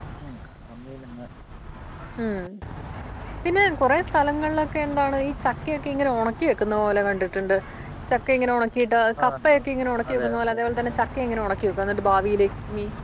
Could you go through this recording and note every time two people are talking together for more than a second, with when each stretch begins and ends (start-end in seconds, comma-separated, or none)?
9.2-11.0